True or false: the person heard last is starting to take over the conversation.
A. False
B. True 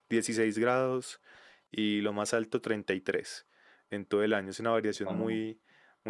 A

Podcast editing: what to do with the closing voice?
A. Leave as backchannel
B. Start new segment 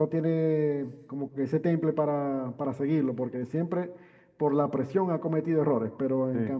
A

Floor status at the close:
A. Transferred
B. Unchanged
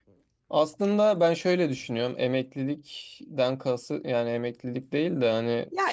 A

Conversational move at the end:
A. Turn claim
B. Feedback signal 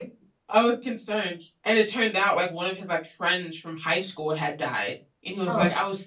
B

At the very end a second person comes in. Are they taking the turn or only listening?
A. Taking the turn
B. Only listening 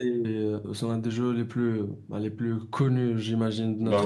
A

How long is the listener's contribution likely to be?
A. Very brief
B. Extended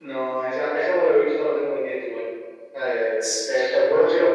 A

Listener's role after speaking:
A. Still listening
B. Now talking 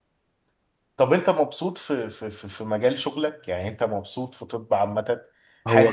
A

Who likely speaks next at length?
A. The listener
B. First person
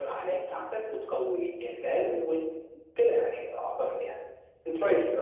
A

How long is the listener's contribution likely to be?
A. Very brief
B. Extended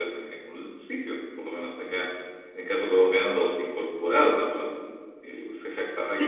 B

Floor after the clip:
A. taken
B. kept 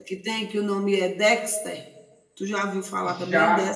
A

